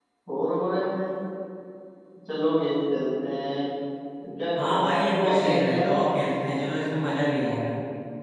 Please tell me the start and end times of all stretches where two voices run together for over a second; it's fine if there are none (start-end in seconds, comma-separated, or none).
4.6-6.1